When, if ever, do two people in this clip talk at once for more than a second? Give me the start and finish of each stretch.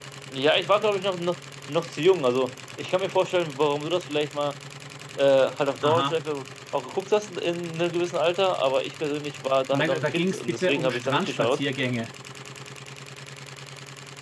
9.7-11.6

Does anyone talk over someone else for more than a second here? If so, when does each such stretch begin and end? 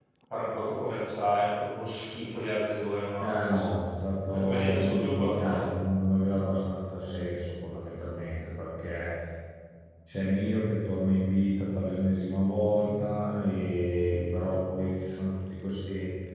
4.3-5.6

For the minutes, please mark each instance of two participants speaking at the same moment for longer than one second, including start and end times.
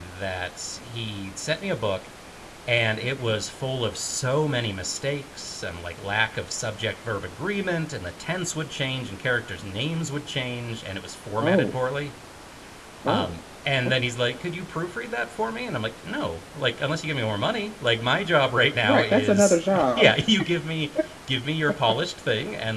18.8-20.1

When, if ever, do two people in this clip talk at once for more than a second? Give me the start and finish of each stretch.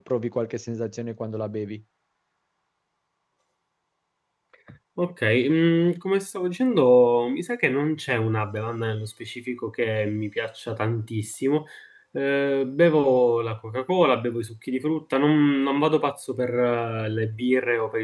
none

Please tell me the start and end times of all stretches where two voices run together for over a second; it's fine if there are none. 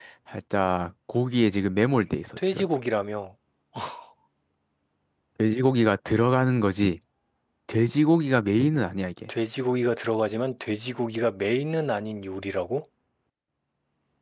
none

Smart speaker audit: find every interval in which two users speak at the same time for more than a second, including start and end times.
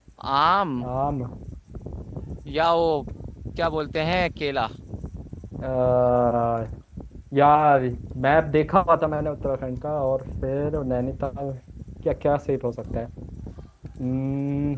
none

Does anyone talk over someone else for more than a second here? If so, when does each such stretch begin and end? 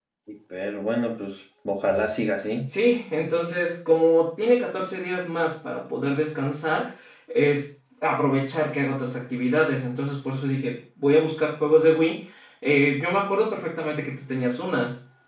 none

